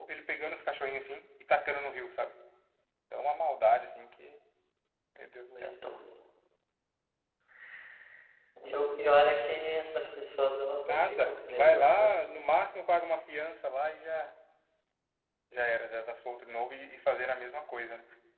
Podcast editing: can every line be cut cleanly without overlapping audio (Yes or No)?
No